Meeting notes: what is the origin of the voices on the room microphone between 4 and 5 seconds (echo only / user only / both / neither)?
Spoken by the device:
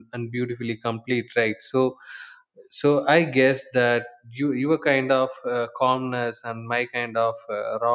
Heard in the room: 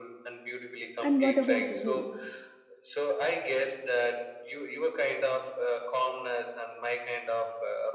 echo only